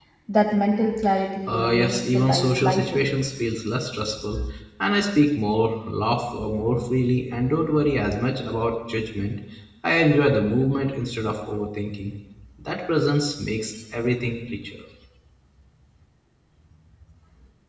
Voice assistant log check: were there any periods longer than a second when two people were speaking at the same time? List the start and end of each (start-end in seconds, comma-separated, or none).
1.5-3.1